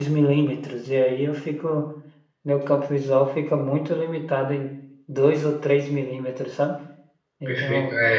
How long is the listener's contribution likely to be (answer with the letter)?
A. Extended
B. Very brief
A